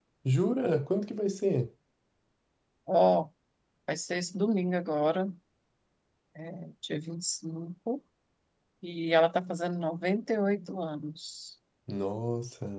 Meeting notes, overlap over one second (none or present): none